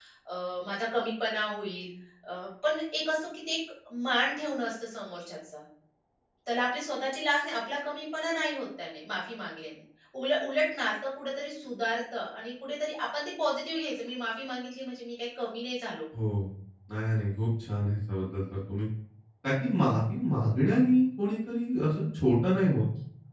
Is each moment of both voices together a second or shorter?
Yes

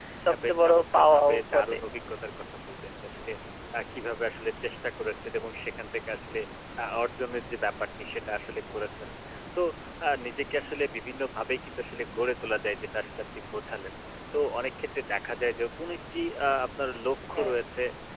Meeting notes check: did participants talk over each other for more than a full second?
Yes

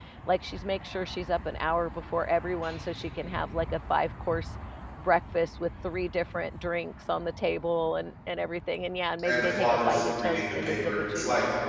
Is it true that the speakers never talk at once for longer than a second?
No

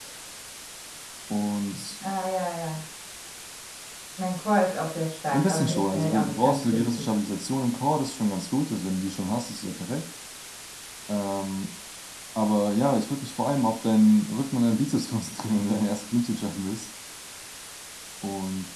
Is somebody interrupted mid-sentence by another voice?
Yes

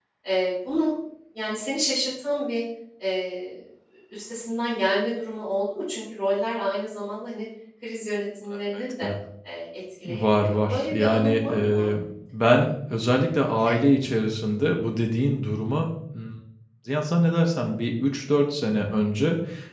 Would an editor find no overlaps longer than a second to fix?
No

